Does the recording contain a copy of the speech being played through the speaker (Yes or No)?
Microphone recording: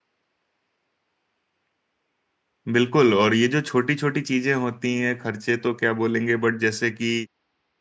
No